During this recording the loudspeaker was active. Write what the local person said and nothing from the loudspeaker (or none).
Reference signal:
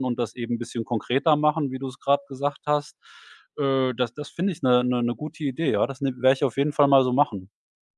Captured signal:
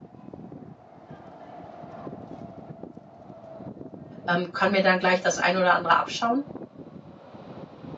ähm, kann mir dann gleich das ein oder andere abschauen?“